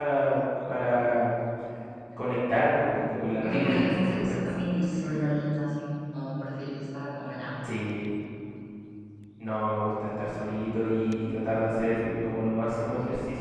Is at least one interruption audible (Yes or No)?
Yes